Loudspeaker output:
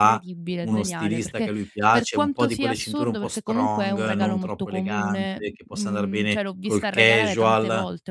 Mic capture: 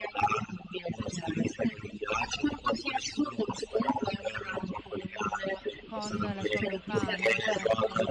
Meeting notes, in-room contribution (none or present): present